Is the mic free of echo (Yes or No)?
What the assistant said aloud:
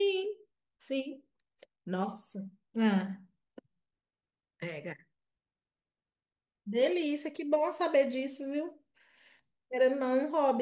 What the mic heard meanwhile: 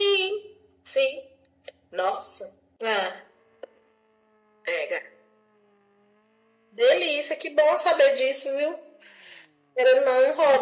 No